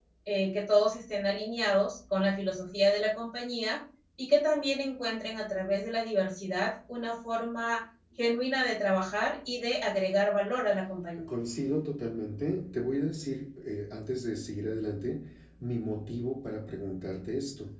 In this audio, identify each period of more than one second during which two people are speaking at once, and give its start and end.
none

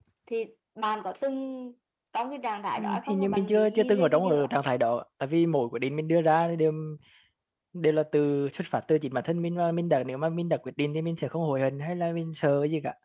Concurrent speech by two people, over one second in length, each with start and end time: 2.8-4.5

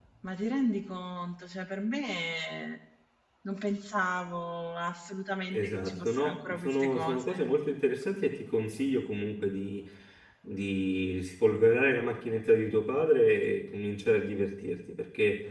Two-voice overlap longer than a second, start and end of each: 5.5-7.4

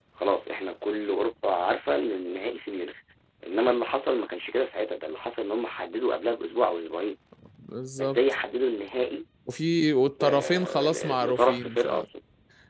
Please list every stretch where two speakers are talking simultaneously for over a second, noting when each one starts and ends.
10.2-11.9

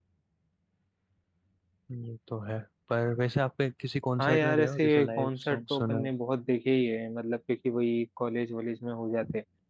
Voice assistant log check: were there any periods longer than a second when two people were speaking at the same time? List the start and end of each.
4.2-6.1

